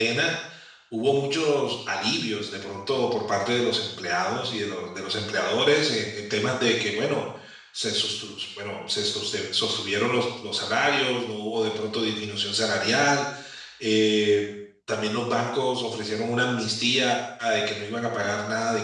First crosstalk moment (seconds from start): none

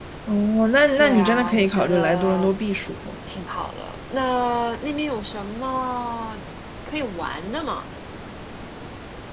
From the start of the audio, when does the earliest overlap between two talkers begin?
1.0 s

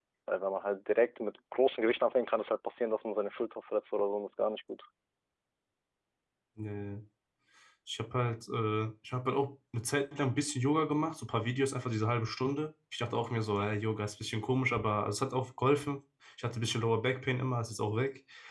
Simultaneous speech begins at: none

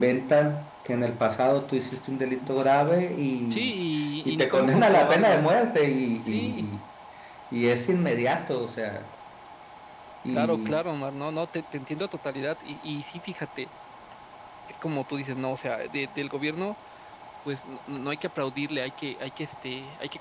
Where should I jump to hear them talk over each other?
3.5 s

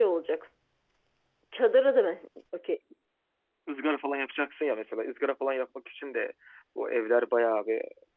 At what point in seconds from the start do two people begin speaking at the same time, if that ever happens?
none

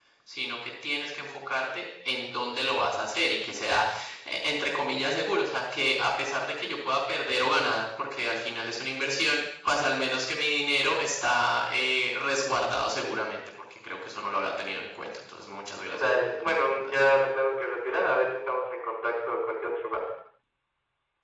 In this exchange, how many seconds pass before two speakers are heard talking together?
15.9 s

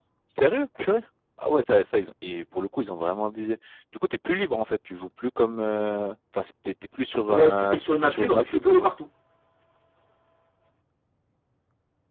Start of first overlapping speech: 7.3 s

